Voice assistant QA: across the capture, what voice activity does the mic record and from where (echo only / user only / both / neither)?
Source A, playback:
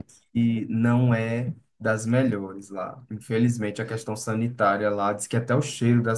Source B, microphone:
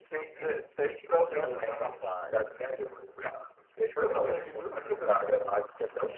both